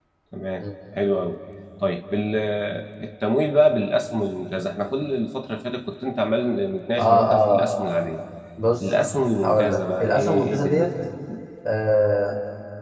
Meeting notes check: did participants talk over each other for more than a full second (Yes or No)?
Yes